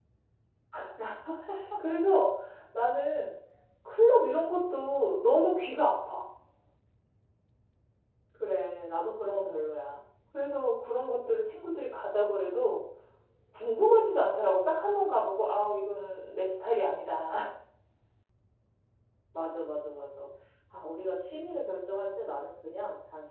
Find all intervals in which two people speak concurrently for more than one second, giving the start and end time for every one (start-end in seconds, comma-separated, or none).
none